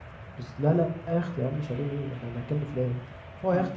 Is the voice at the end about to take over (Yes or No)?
No